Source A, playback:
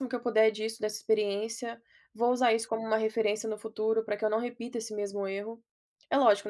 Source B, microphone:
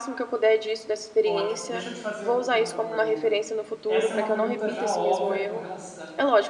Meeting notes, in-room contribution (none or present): present